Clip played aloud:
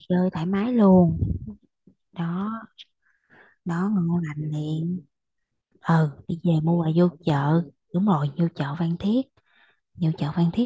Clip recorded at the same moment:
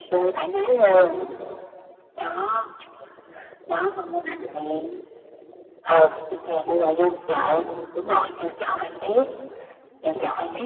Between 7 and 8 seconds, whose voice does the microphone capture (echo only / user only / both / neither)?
echo only